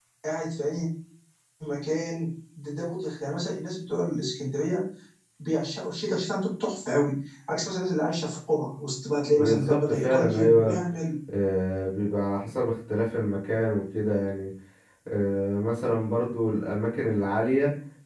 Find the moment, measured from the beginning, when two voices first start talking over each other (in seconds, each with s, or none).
9.4 s